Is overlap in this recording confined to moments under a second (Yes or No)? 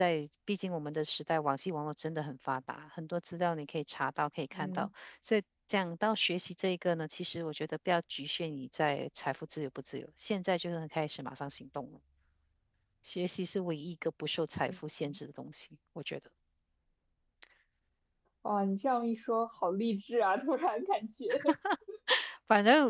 Yes